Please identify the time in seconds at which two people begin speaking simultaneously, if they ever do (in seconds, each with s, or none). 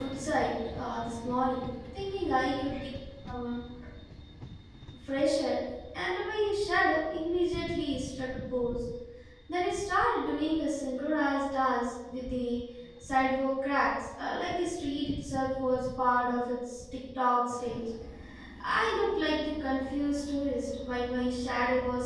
none